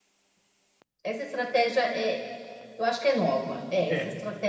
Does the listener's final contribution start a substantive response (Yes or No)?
No